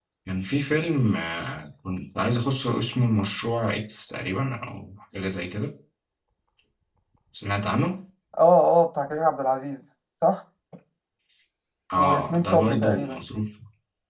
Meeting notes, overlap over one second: present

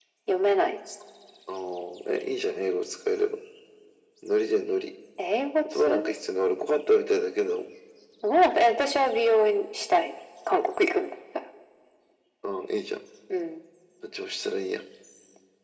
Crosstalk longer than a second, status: none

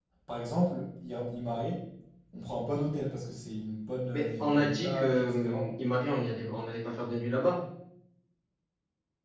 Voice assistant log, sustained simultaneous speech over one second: present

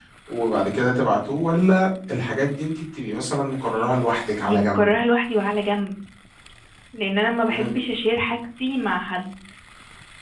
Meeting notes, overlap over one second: none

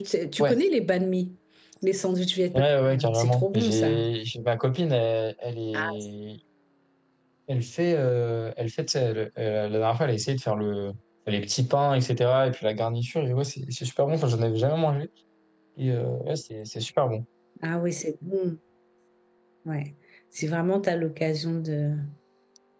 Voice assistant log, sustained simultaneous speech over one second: present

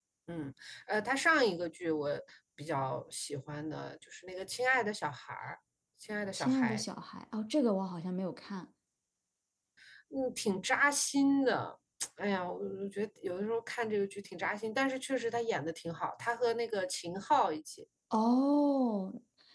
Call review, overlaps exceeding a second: none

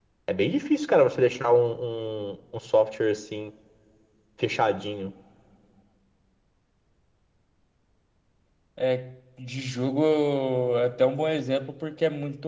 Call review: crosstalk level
none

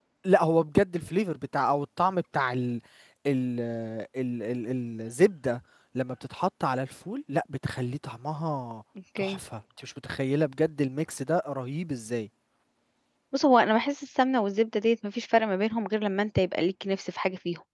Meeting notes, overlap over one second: none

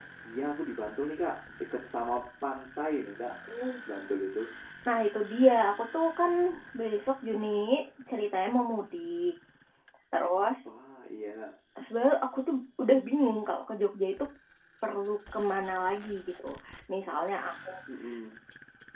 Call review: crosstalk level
none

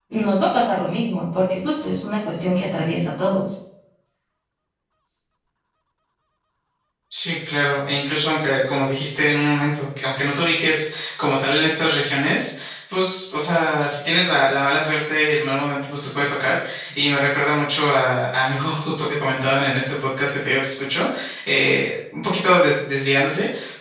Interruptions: none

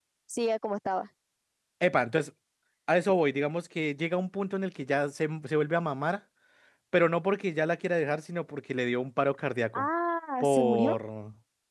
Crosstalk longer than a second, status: none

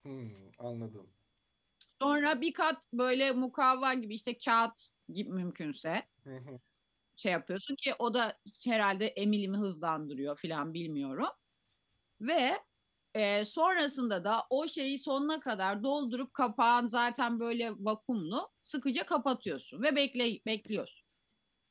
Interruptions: none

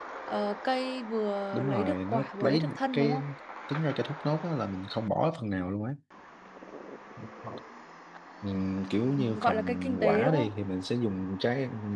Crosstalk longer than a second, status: present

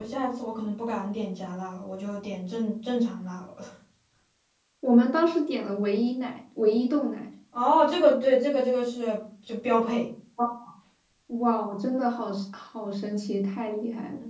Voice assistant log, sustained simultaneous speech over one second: none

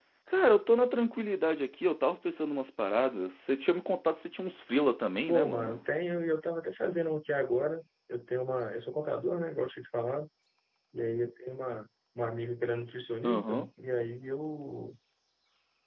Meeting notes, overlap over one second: none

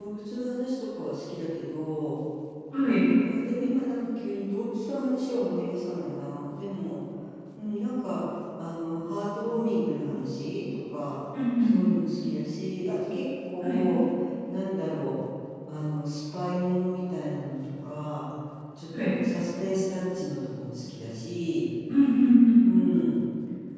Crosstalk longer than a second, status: none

